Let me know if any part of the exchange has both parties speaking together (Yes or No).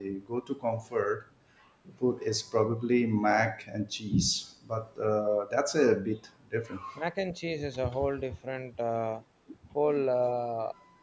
No